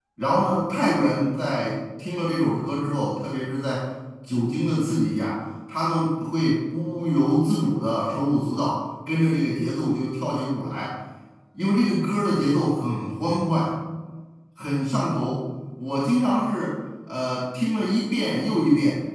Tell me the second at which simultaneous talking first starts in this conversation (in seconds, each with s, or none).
none